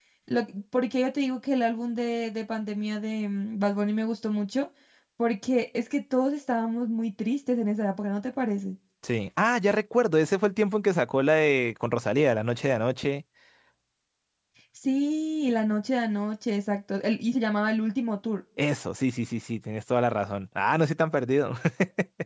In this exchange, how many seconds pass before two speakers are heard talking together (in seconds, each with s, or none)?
none